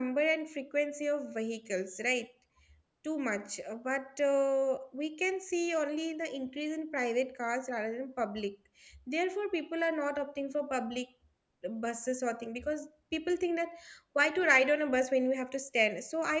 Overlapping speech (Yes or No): No